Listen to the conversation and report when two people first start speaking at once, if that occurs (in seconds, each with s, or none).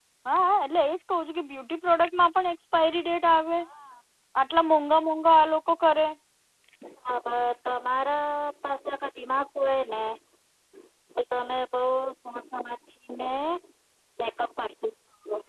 none